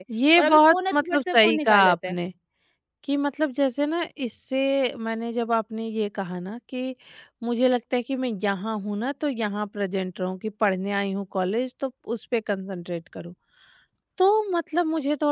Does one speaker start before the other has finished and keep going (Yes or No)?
Yes